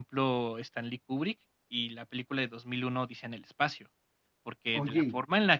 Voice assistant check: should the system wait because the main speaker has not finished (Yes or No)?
Yes